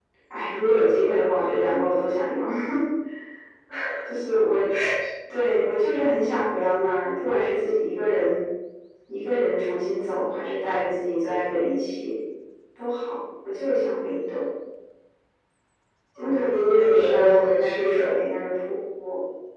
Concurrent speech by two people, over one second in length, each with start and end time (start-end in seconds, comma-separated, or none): 16.2-18.2